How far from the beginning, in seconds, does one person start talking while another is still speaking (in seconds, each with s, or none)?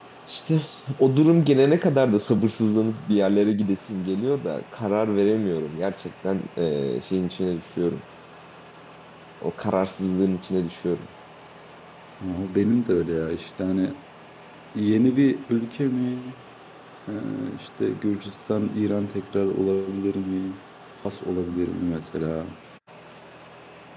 none